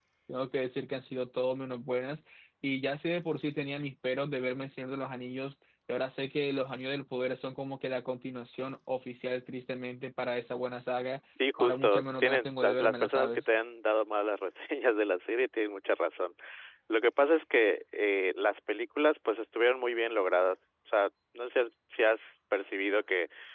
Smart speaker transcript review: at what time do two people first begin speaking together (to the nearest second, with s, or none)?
11 s